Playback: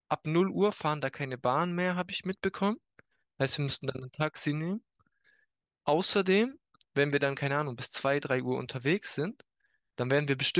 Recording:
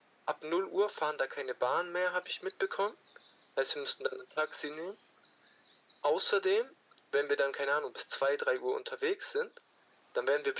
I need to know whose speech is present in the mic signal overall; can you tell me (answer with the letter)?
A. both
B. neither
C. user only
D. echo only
D